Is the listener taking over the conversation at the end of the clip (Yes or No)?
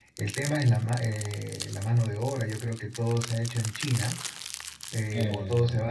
No